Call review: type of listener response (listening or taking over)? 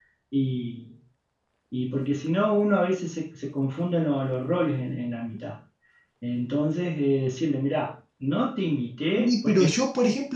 taking over